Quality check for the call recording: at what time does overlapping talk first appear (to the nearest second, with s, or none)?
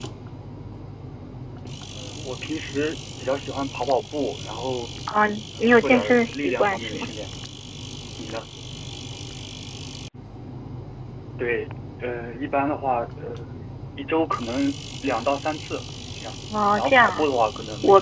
6 s